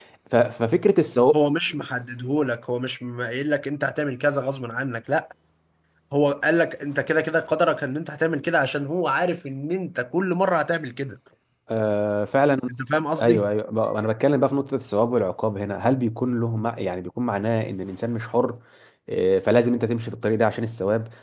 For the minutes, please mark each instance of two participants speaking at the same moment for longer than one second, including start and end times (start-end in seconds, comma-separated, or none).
none